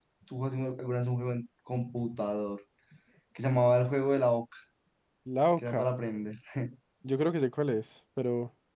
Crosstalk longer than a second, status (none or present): none